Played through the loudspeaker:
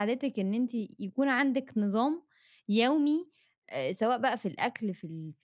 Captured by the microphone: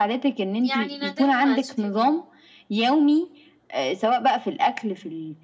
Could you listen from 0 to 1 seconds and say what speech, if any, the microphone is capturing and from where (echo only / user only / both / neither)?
both